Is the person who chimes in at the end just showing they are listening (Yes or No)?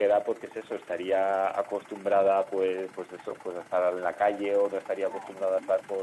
Yes